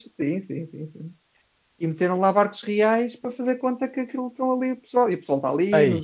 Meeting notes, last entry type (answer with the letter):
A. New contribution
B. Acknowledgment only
B